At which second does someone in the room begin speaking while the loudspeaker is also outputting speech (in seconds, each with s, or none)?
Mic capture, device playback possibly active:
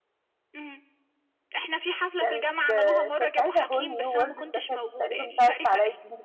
2.2 s